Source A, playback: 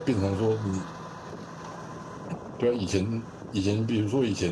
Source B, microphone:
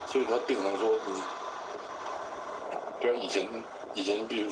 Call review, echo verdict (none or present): present